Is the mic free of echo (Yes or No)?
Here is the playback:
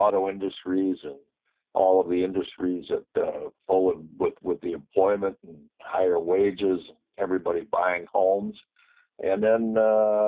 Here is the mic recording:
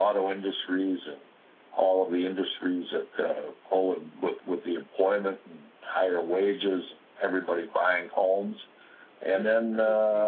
No